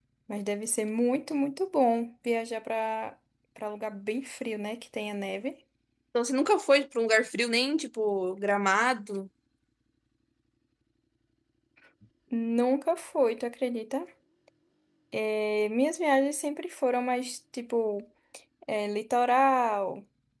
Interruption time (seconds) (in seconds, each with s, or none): none